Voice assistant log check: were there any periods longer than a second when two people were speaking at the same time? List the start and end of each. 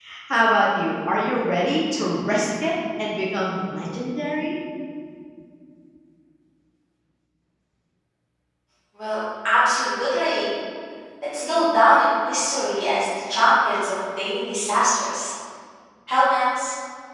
none

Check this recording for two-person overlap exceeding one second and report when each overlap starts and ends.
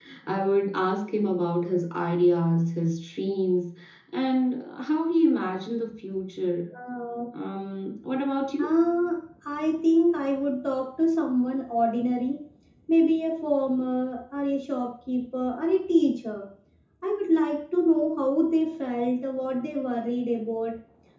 none

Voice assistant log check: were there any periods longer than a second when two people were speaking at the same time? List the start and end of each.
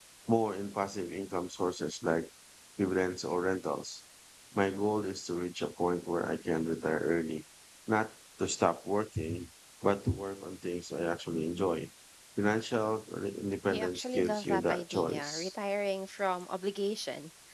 13.7-15.5

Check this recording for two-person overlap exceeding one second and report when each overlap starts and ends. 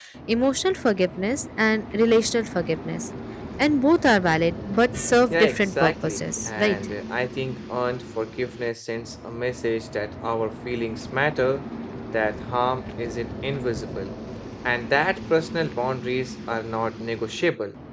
5.3-6.8

